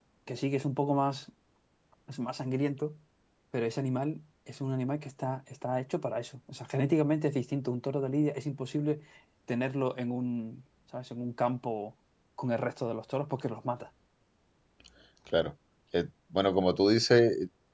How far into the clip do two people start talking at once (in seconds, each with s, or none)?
none